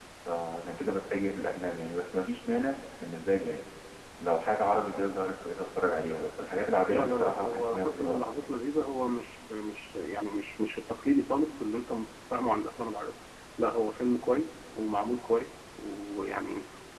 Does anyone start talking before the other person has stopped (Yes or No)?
Yes